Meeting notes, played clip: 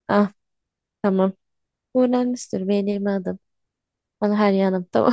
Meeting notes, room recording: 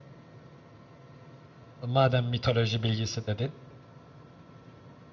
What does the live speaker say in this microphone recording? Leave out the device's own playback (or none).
Madem mitoloji bilgisi dedin.